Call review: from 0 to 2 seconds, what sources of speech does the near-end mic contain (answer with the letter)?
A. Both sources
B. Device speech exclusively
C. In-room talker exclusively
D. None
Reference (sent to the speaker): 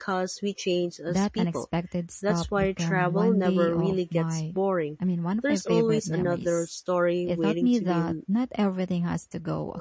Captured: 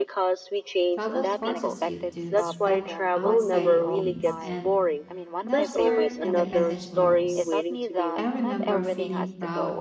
A